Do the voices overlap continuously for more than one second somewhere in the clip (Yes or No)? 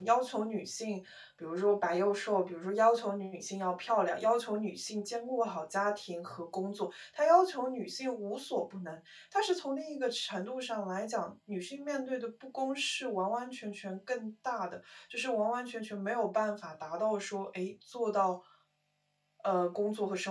No